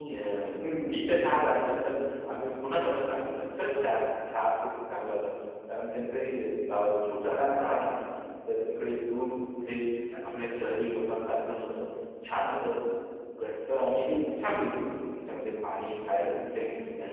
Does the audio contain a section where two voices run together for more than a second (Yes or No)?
No